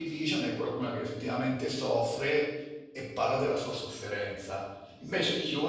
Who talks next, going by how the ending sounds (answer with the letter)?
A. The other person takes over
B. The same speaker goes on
B